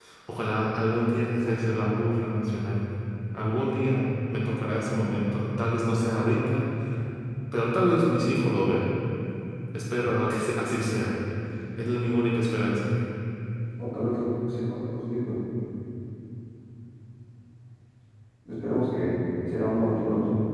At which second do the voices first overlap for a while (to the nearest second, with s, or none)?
none